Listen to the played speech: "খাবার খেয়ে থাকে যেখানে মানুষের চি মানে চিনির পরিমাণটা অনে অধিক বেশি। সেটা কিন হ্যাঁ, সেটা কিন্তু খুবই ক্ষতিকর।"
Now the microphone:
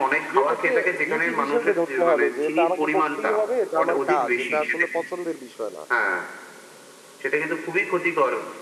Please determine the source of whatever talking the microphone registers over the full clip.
both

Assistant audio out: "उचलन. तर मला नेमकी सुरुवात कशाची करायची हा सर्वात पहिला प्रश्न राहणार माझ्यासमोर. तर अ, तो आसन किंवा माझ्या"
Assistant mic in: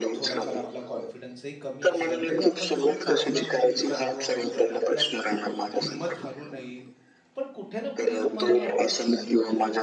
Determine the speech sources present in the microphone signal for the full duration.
both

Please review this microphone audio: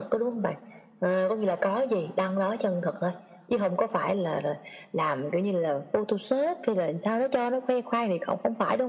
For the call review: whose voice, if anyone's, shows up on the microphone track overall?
echo only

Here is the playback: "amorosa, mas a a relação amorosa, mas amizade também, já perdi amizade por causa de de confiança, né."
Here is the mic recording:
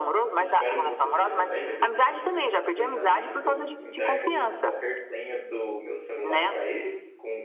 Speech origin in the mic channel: both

